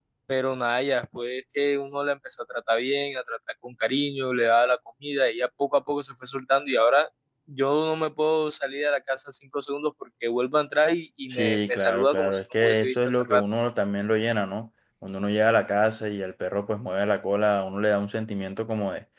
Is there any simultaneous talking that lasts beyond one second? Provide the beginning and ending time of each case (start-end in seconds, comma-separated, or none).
11.3-13.4